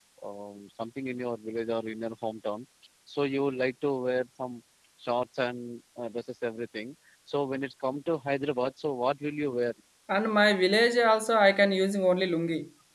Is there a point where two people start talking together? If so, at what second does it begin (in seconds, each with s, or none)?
none